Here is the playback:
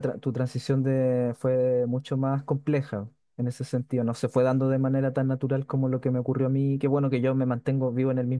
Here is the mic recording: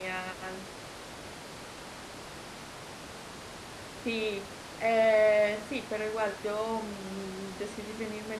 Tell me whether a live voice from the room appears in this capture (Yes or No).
Yes